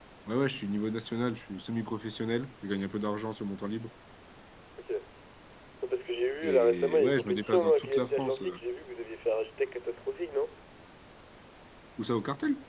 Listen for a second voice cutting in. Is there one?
Yes, from 6.4 s

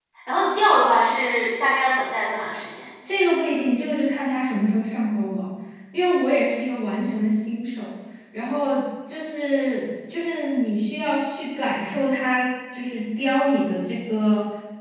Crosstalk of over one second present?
No

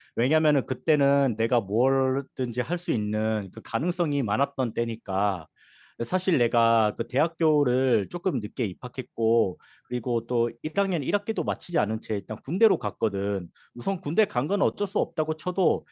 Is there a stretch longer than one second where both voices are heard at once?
No

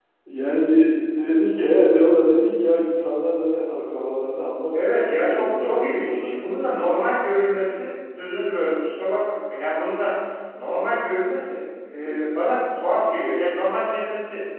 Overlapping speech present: Yes, from 4.9 s

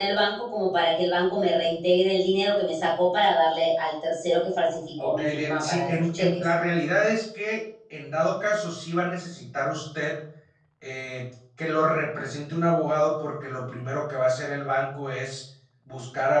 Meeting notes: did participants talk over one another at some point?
Yes, from 5.0 s

